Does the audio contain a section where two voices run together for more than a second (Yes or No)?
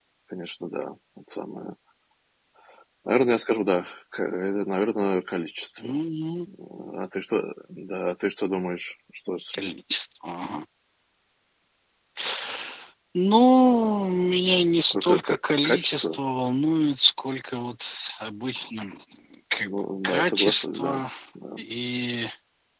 Yes